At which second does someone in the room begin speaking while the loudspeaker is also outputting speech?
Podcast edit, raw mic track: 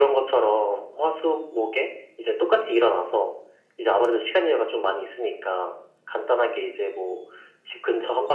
none

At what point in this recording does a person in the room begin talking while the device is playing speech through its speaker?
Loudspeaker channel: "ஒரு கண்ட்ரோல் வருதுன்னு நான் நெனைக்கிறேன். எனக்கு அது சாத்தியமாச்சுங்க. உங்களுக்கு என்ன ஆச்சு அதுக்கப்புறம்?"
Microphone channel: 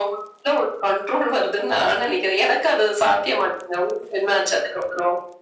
none

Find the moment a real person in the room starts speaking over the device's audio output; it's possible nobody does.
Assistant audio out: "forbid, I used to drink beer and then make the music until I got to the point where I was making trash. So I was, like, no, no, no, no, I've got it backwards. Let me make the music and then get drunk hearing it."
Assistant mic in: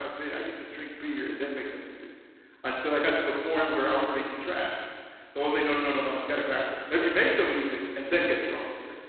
none

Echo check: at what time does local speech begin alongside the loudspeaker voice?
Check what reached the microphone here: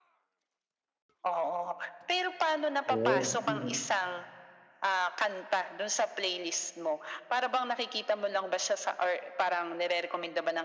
2.9 s

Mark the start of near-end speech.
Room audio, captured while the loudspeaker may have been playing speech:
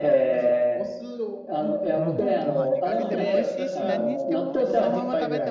1.9 s

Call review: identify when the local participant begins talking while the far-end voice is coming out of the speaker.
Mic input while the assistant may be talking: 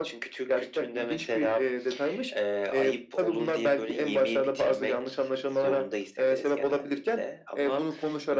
none

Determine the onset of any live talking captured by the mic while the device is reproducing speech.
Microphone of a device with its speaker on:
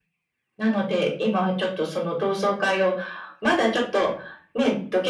none

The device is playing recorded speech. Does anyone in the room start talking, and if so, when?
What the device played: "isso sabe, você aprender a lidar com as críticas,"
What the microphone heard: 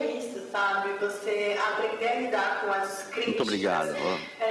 3.2 s

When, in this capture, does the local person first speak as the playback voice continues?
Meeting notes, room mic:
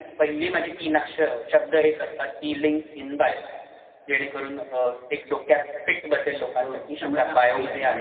6.6 s

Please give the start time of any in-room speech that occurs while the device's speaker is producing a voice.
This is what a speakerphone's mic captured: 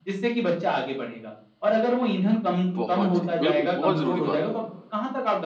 2.8 s

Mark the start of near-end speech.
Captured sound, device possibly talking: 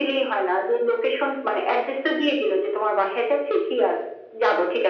none

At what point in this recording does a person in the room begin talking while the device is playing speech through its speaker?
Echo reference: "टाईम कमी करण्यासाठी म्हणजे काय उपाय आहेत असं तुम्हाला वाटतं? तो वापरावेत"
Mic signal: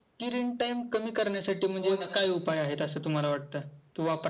1.8 s

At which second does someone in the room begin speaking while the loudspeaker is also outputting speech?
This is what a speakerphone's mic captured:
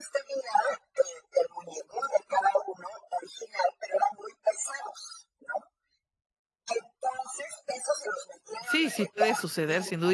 8.6 s

